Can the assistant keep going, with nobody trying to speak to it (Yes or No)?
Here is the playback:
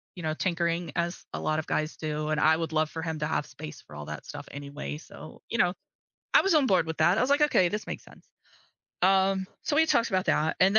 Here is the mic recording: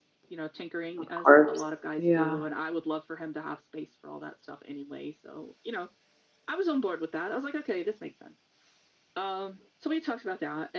No